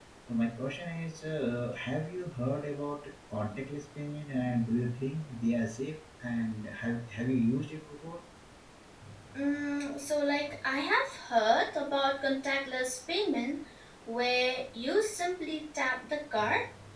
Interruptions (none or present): none